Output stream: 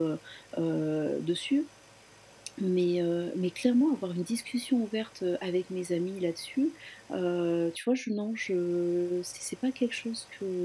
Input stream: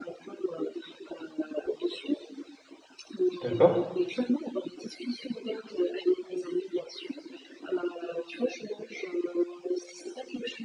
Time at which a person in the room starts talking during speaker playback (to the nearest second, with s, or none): 3 s